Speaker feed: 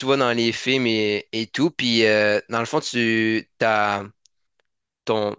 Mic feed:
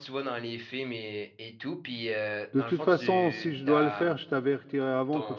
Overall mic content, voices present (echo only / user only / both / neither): both